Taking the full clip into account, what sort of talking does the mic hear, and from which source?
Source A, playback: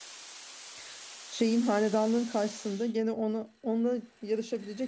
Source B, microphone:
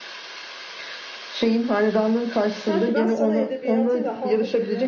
both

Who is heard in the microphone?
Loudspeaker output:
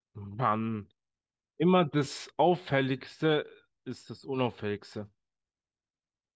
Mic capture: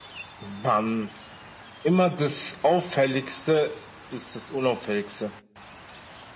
echo only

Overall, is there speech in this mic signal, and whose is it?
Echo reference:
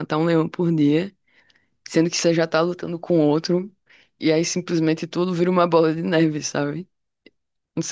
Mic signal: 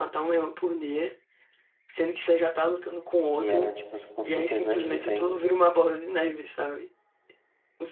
both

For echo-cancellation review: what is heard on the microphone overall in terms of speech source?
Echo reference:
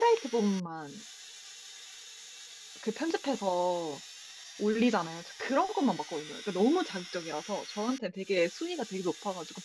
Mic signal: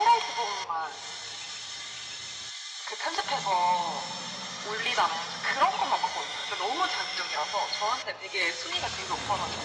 echo only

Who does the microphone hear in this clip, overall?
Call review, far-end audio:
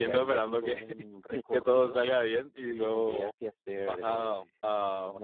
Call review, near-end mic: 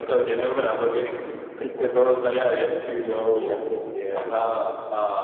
echo only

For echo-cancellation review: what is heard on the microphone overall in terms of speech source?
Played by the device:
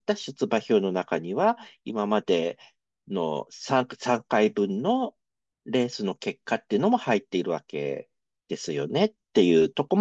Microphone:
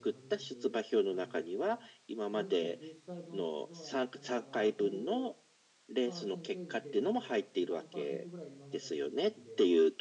both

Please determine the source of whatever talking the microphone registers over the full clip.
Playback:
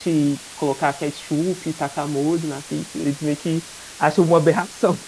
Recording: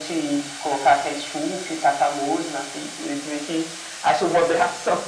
echo only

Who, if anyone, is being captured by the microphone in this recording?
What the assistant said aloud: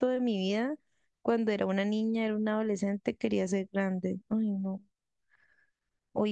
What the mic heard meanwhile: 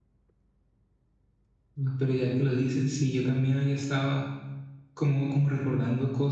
user only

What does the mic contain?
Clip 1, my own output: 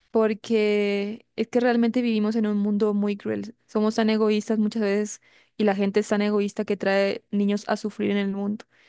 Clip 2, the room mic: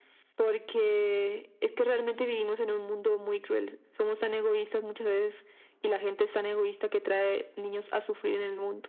echo only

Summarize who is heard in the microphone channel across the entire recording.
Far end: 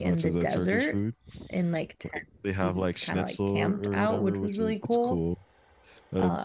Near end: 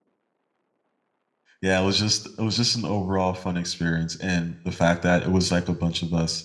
user only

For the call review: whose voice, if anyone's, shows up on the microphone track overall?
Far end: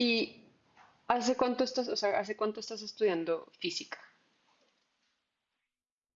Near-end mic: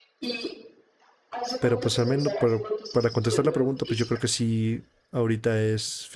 both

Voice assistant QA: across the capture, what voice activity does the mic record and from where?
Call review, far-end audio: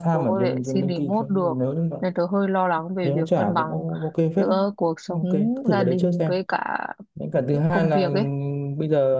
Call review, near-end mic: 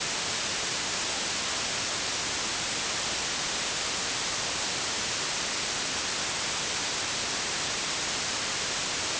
neither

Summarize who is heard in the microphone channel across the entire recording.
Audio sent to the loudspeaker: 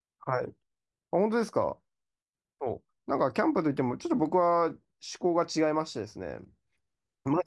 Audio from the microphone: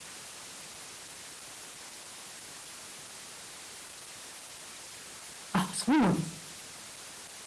user only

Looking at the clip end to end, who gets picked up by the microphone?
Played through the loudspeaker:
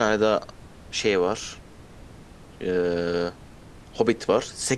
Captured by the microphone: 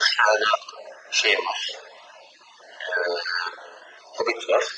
echo only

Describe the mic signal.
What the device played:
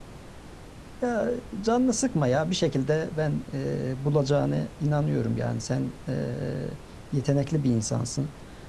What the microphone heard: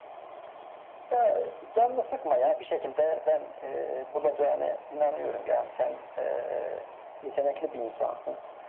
echo only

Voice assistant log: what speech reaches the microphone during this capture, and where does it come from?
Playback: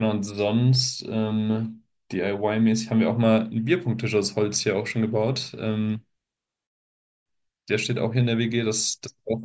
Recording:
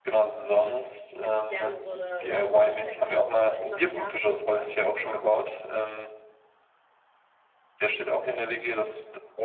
both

